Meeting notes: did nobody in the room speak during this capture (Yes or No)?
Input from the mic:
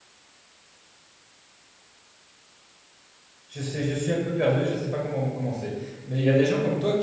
No